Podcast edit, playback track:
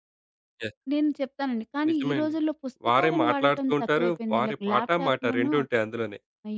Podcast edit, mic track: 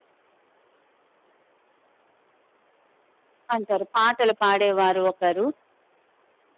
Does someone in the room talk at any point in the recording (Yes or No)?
Yes